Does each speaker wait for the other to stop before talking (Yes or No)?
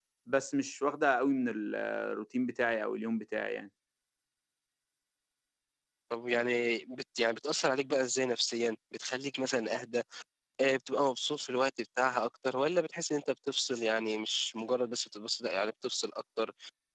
Yes